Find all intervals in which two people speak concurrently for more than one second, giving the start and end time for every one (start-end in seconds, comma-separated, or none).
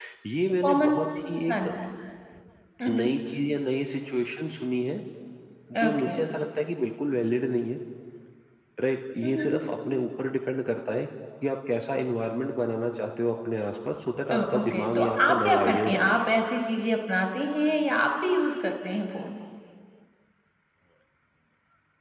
14.3-16.1